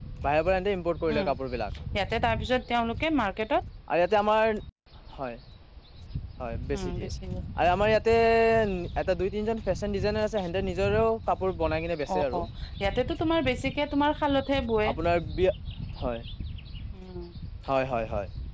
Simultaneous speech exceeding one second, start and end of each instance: none

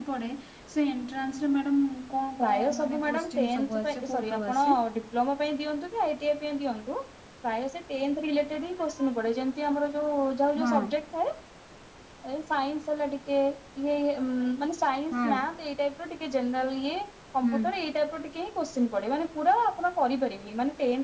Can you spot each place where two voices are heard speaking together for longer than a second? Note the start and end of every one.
2.4-4.8

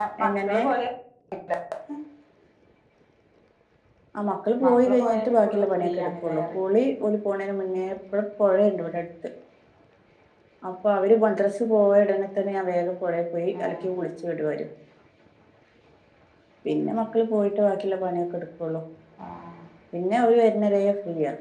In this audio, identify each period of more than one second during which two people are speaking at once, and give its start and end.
4.6-6.6

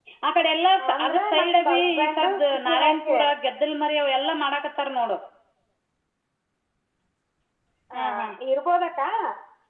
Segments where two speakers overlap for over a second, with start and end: 0.9-3.2

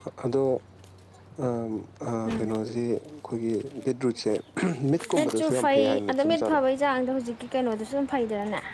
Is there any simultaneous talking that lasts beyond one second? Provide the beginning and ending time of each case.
5.2-6.6

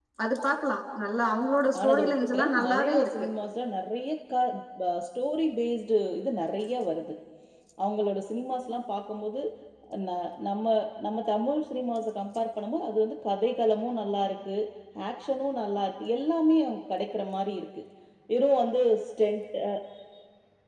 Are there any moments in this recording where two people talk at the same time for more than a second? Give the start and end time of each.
1.8-3.3

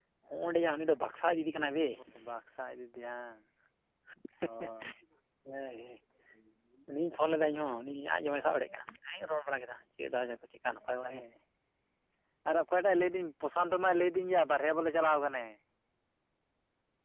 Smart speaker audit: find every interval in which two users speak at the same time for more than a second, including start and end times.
none

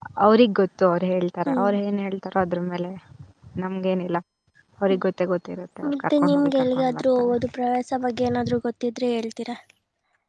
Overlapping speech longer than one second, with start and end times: 5.9-7.3

